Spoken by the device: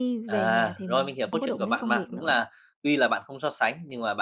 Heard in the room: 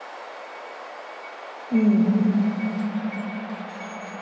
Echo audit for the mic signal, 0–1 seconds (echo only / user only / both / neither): neither